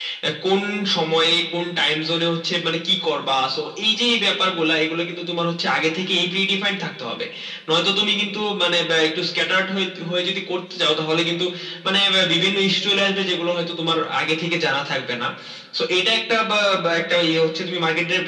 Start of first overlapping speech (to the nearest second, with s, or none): none